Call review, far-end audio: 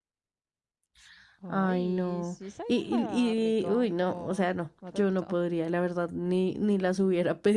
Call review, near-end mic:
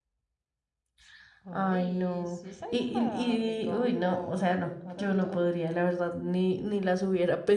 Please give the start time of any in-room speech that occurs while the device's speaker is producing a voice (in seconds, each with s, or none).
none